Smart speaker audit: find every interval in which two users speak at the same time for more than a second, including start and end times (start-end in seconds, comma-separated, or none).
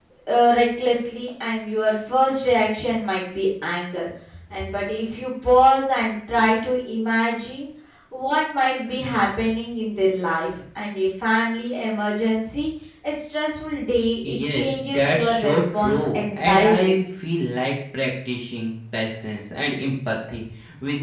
14.3-17.0